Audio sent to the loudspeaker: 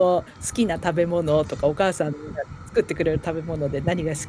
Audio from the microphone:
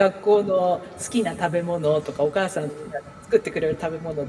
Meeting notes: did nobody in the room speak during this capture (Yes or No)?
Yes